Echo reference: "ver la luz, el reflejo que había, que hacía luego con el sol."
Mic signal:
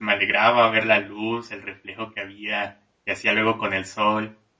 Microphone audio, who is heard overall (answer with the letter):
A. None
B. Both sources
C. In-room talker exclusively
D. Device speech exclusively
D